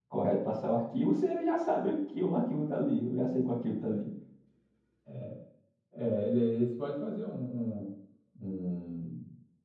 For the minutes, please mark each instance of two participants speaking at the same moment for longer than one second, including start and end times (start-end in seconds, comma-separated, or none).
none